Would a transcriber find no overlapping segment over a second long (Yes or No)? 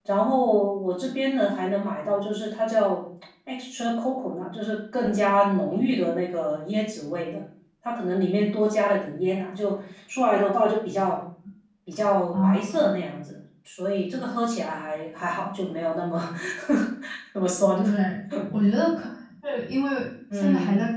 Yes